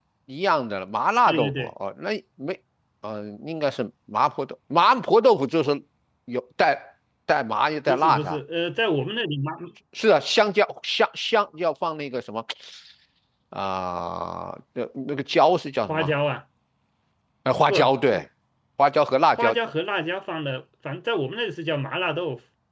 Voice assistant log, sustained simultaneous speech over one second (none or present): none